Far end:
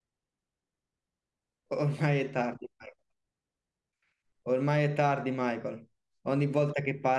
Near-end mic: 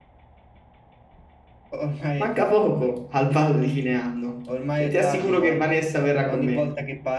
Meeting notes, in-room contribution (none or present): present